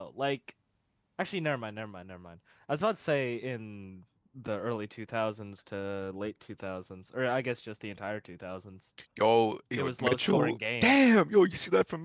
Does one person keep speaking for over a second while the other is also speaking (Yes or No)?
Yes